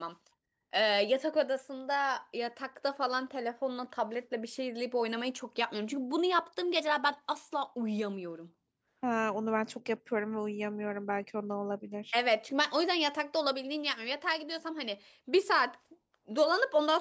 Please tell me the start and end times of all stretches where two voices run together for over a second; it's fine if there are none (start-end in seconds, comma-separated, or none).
none